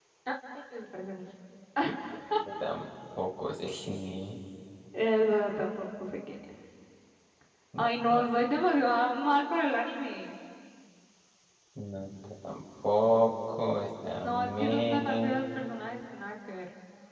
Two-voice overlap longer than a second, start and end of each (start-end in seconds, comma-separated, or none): 14.2-15.4